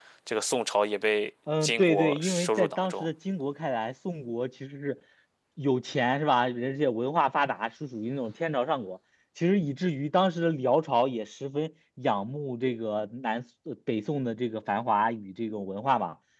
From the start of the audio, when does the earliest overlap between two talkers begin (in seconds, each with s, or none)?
1.5 s